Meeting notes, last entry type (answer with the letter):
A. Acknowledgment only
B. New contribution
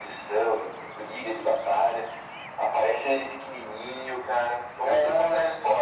B